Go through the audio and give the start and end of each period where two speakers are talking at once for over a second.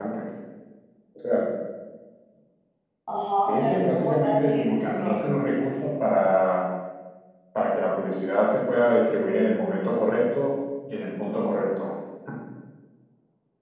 3.5-5.2

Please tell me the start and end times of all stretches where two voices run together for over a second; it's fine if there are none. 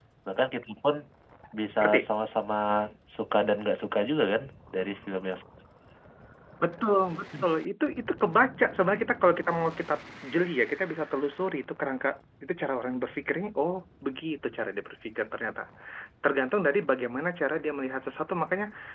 none

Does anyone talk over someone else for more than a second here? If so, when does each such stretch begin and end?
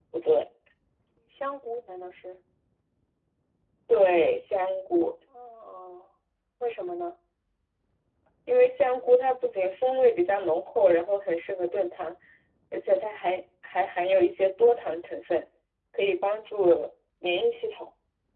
none

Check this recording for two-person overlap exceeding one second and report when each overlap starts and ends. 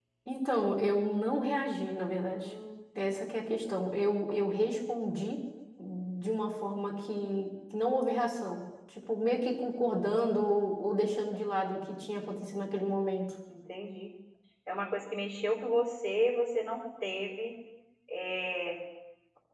none

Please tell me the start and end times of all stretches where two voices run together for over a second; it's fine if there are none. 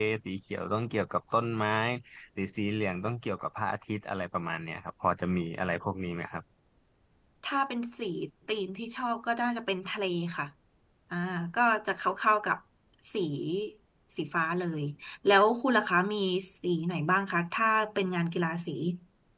none

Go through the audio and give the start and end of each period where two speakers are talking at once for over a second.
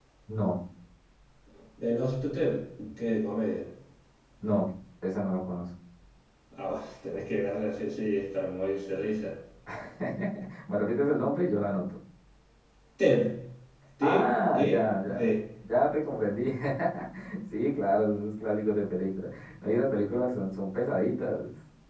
14.0-15.3

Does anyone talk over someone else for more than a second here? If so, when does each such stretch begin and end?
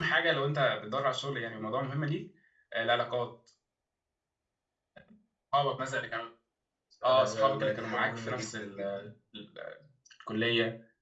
7.0-8.8

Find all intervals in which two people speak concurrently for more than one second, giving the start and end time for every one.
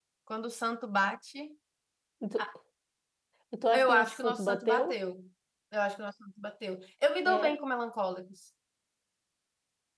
3.7-5.0

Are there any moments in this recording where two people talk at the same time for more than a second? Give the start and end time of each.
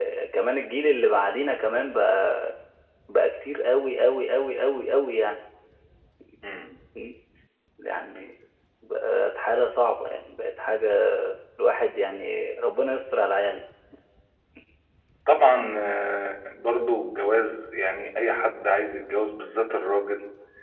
none

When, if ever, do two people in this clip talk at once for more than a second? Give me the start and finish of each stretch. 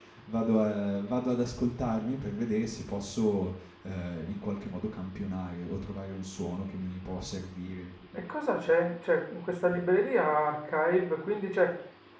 none

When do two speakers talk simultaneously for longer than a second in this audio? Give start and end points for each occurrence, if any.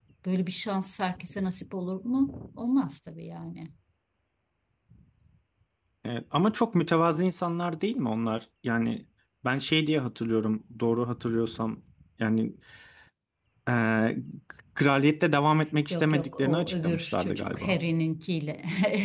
15.9-17.8

